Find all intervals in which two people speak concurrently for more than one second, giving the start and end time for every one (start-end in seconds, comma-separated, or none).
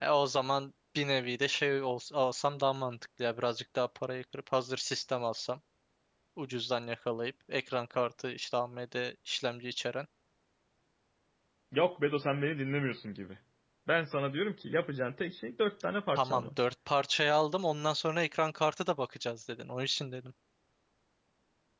none